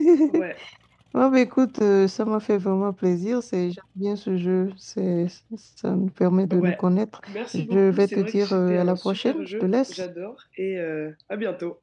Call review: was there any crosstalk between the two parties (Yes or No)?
Yes